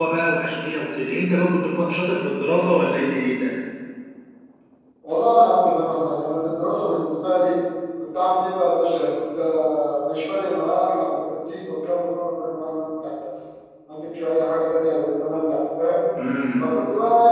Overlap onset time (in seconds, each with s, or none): none